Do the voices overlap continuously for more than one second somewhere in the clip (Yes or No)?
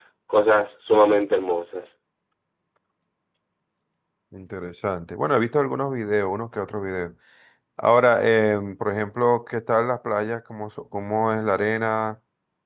No